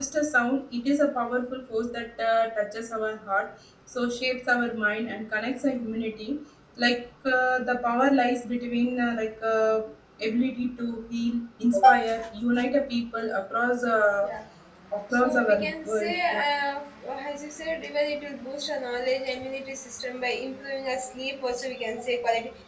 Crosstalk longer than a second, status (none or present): present